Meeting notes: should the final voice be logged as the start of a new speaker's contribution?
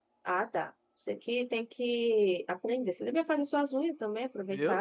Yes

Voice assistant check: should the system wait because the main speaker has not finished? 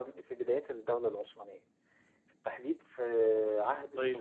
Yes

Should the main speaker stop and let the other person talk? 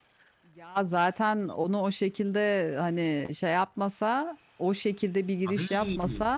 No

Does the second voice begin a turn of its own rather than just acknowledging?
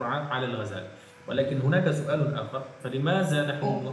No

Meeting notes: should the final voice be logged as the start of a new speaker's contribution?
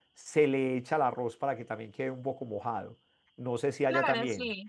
Yes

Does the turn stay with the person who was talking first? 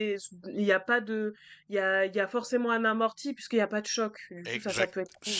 No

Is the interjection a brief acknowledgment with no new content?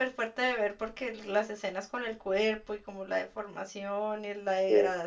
Yes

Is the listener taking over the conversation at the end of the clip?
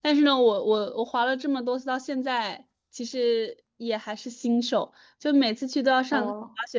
No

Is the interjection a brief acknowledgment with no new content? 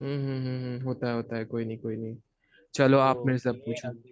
No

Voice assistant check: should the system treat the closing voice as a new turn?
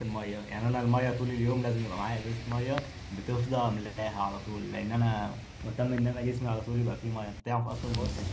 No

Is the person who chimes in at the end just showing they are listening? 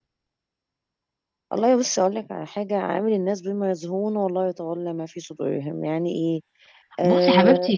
No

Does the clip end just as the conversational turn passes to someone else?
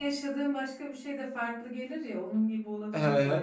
Yes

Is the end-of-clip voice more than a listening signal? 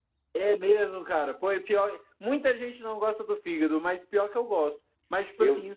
No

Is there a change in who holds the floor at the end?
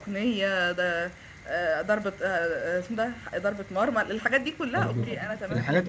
Yes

